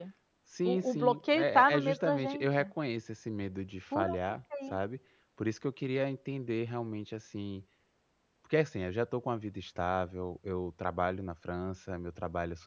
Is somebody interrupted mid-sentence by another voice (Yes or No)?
Yes